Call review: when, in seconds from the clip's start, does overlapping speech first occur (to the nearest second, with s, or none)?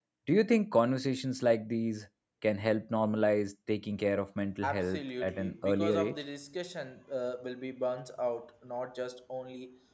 5 s